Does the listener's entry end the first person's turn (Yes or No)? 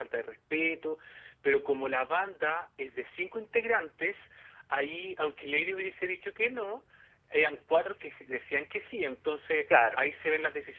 No